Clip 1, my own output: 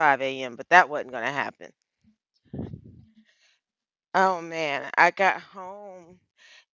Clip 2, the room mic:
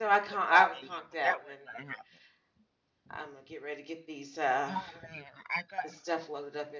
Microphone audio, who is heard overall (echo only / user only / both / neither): both